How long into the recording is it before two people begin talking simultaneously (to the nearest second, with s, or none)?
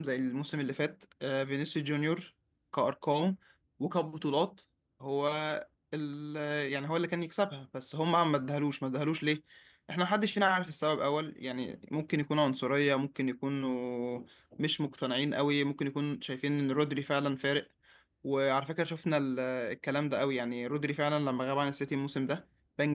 none